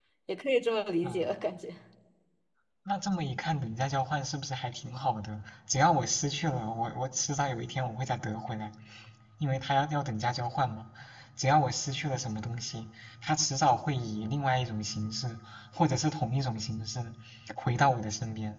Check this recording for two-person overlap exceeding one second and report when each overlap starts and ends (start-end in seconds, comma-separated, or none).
none